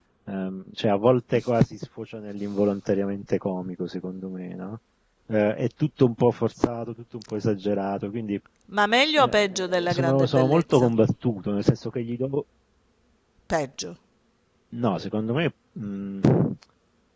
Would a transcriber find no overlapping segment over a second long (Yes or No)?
No